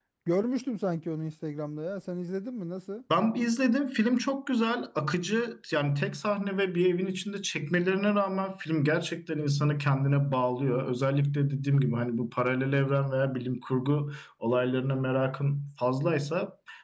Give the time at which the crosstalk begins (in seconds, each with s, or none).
none